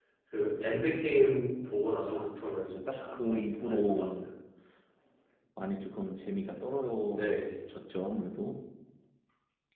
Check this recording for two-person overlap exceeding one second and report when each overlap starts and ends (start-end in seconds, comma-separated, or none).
2.6-4.2